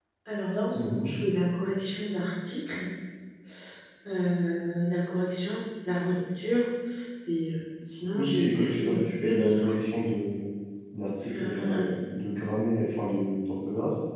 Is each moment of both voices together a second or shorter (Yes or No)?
No